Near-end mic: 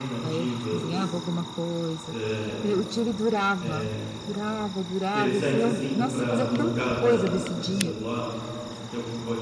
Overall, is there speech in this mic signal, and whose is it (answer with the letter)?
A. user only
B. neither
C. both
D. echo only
C